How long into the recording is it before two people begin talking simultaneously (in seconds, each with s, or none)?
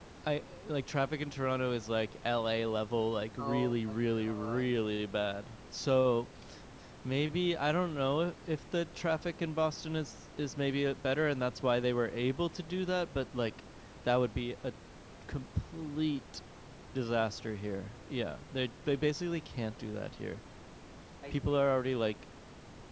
3.4 s